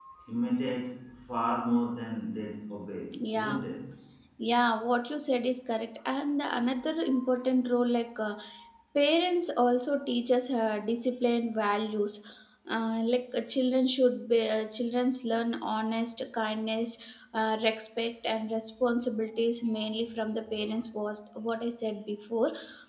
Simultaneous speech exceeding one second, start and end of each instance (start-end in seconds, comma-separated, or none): none